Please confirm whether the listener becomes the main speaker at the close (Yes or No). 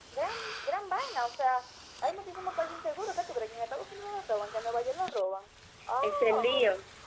Yes